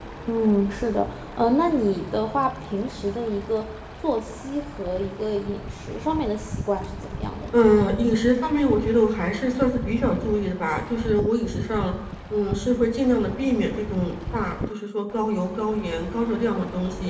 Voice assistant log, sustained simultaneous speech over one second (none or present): none